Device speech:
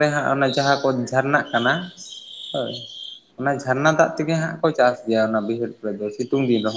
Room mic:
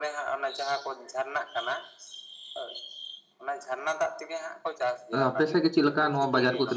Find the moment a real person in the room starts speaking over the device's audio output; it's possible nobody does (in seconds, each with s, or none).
5.1 s